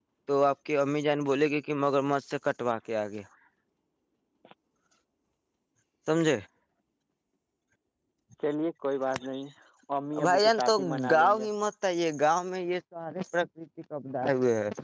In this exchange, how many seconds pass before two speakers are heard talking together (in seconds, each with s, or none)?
10.2 s